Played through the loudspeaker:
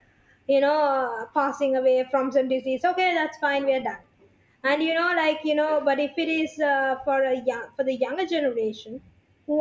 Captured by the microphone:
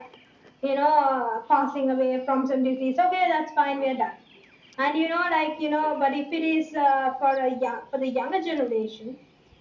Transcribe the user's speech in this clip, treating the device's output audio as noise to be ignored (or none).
none